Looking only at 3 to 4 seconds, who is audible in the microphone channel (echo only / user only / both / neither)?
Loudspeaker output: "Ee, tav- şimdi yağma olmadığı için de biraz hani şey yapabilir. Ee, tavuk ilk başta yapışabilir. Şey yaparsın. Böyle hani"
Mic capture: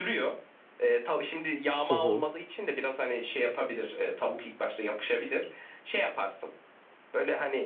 echo only